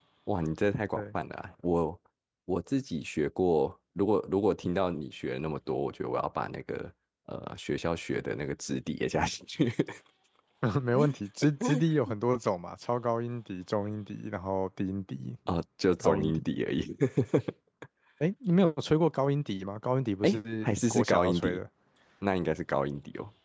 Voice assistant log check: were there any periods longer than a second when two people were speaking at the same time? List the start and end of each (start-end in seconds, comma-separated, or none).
20.2-21.6